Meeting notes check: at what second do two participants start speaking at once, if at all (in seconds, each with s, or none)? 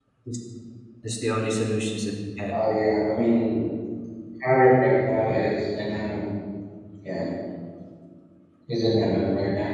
none